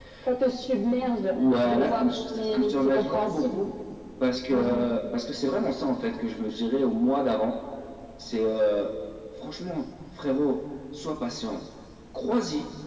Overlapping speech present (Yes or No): Yes